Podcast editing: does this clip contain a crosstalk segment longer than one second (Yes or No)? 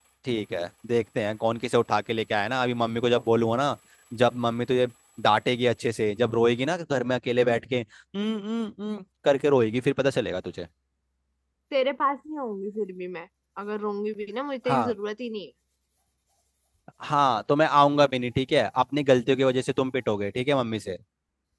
No